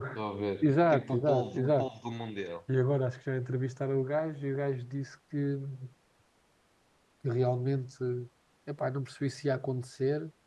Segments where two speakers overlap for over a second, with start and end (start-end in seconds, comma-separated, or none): 0.6-1.9